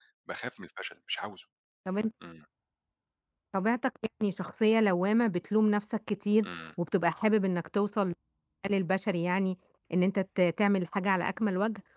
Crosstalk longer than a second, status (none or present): none